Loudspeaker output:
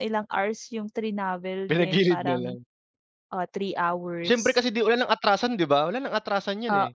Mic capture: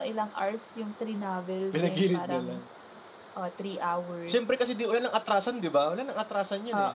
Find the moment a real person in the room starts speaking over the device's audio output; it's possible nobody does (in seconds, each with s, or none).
none